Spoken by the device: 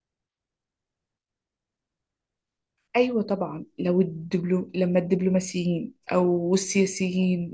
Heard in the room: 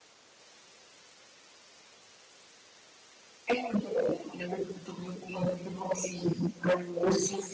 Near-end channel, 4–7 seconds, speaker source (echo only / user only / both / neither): echo only